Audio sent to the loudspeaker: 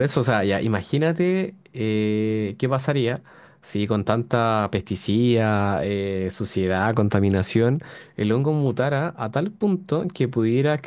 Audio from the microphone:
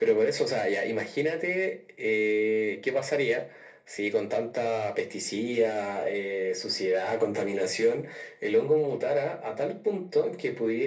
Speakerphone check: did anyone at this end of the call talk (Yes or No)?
No